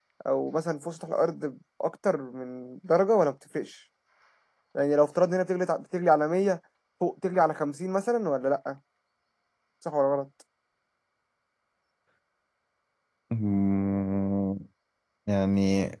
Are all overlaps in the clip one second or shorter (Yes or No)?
Yes